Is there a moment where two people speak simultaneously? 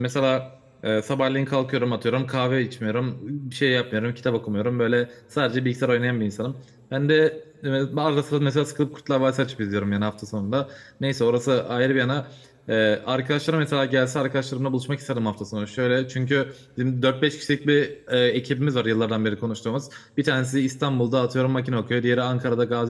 No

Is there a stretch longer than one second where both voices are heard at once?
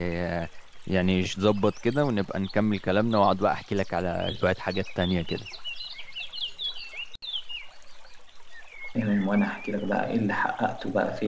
No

